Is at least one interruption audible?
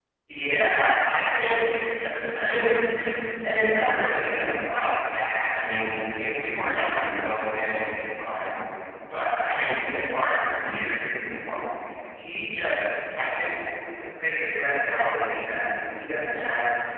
No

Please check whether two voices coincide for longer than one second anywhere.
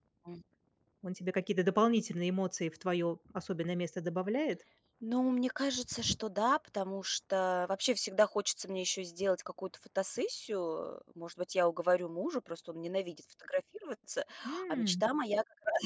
No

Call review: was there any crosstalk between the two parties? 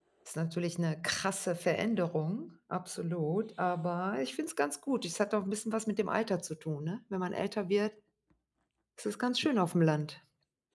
No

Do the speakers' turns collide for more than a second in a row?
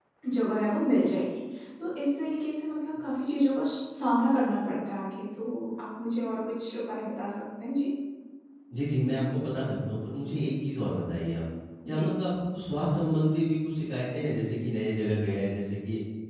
No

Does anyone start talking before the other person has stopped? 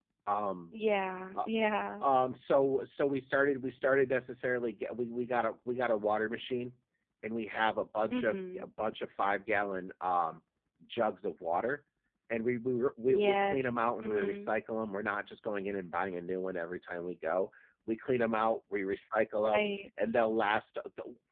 Yes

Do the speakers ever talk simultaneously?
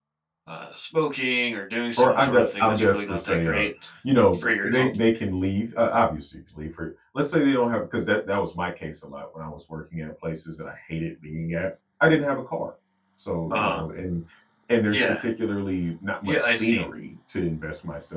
Yes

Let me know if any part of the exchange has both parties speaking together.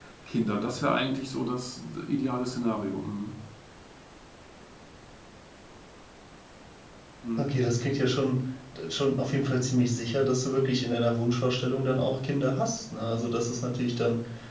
No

